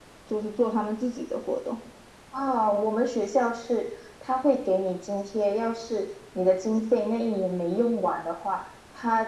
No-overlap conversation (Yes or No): Yes